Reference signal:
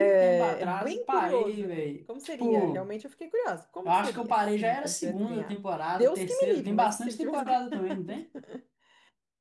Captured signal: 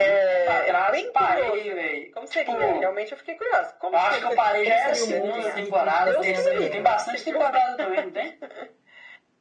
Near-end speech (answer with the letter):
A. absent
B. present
B